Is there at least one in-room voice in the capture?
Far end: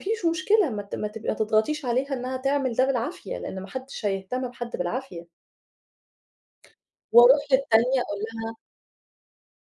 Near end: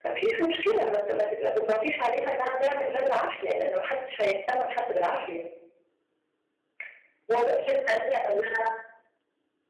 No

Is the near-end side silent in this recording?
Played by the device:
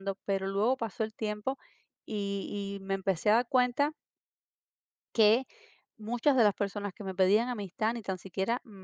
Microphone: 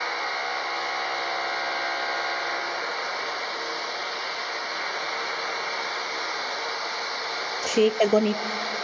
No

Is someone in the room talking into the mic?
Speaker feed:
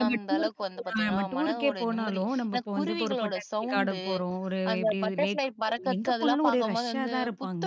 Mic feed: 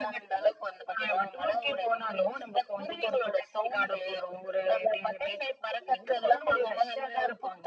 No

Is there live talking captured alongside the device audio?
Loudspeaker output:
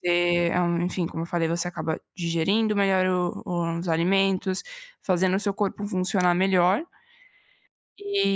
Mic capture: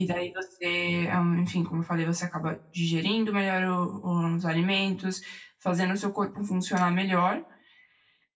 No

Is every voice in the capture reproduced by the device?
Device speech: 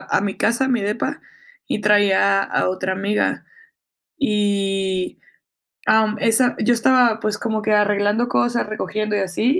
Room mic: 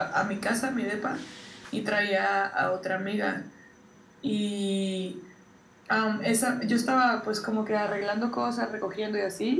Yes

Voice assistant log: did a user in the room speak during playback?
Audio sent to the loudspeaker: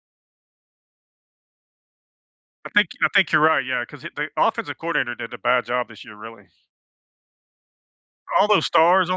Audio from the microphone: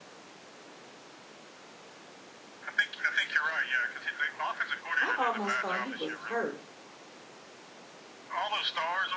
Yes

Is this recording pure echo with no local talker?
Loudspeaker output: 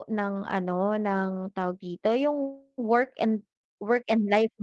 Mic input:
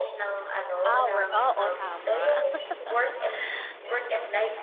No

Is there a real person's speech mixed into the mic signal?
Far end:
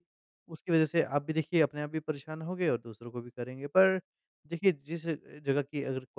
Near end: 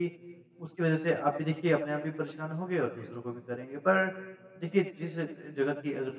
No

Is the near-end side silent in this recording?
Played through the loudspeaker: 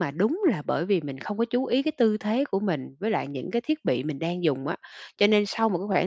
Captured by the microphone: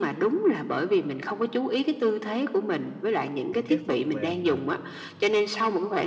No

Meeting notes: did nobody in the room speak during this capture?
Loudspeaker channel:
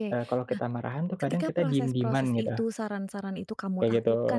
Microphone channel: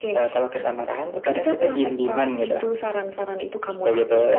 Yes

